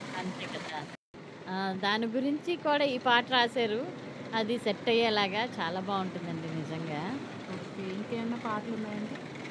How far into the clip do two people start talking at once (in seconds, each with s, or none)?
none